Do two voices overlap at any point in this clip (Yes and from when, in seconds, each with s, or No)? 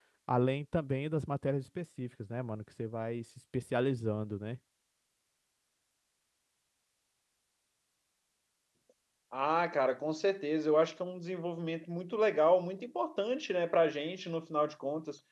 No